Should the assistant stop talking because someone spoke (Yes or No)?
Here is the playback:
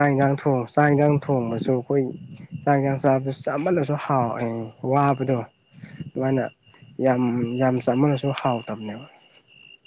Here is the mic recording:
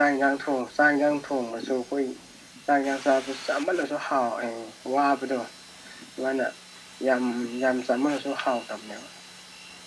No